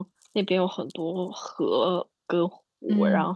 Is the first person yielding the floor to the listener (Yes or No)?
No